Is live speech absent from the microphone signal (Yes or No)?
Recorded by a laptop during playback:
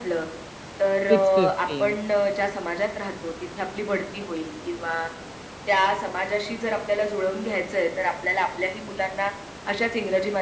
No